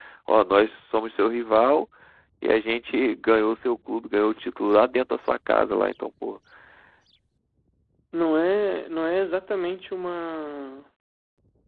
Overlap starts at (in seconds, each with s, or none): none